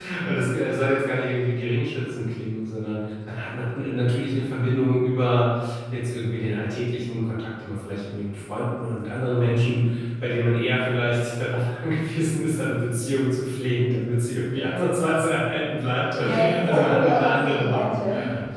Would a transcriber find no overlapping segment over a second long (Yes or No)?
No